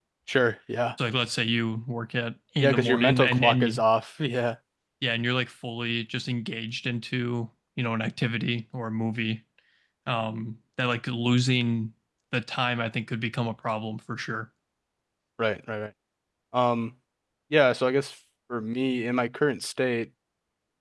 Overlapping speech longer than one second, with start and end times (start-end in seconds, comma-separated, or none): 2.6-3.8